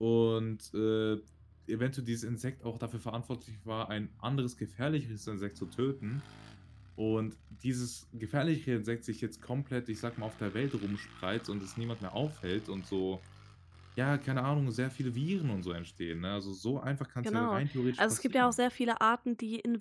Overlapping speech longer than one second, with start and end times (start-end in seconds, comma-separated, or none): 17.2-18.6